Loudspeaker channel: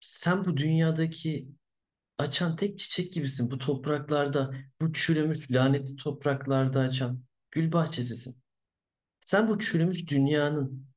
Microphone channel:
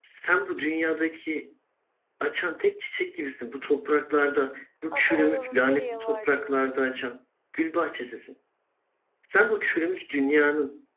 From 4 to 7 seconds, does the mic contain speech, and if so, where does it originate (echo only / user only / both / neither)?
both